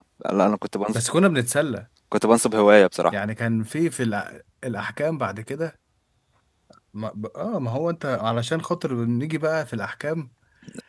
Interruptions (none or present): none